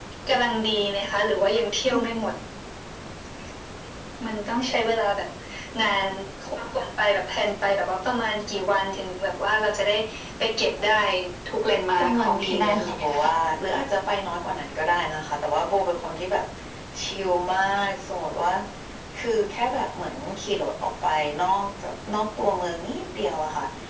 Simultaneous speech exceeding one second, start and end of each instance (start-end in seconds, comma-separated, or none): 12.0-13.4